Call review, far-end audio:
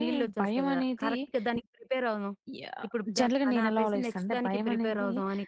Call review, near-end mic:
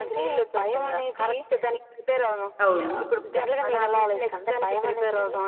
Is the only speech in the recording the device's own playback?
No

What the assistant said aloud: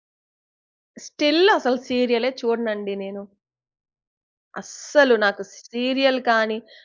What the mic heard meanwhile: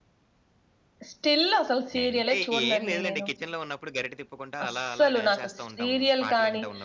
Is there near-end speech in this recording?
Yes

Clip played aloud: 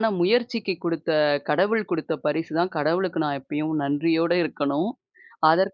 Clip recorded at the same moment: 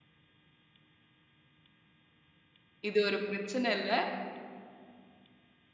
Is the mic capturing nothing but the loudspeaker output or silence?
No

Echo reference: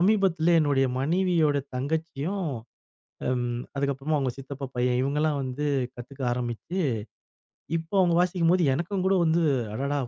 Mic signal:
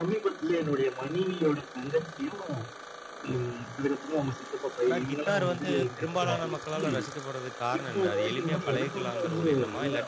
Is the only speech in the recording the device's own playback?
No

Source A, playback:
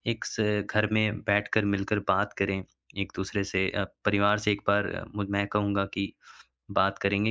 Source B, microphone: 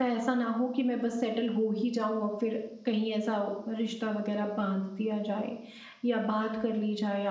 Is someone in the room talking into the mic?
Yes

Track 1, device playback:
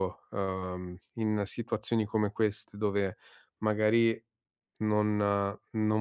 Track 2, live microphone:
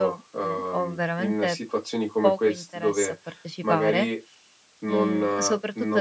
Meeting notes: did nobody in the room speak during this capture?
No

